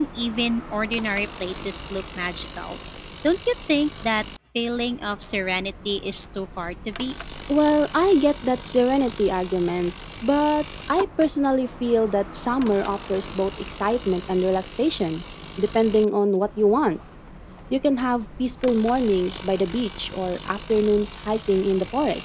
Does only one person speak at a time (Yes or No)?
Yes